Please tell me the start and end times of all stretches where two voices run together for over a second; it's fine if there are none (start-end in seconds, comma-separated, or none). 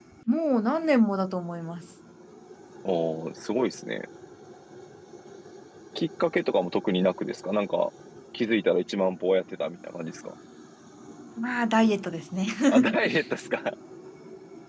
none